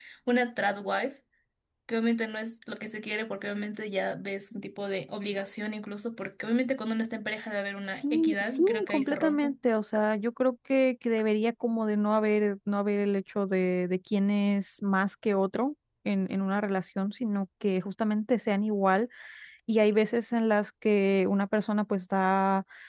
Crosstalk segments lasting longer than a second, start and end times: 7.9-9.5

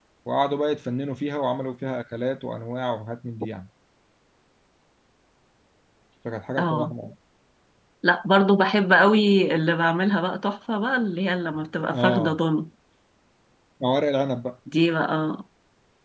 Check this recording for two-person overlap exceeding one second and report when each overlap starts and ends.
none

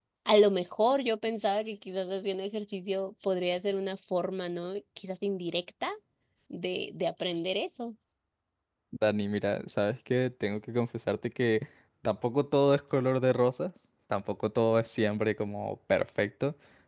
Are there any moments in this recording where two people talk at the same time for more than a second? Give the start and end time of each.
none

